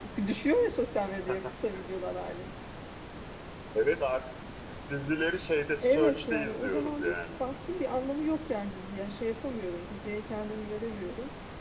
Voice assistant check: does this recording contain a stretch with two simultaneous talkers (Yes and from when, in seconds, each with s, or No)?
Yes, from 5.8 s